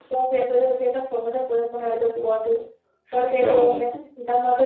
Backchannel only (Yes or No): Yes